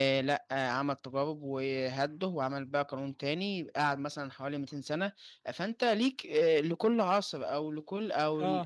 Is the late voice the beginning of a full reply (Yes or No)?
No